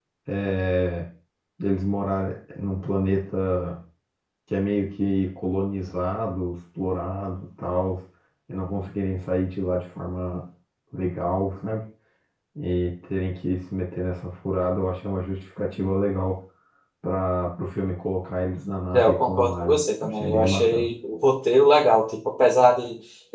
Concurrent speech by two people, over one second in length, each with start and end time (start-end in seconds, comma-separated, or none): 18.9-20.9